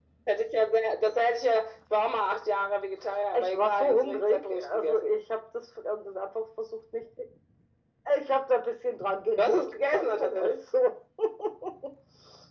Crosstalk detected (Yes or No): Yes